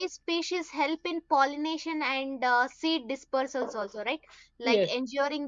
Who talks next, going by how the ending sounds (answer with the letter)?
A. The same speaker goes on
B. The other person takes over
A